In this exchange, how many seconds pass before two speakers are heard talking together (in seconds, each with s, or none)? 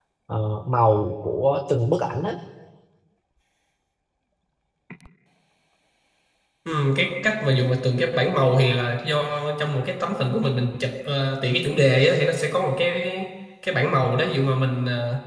none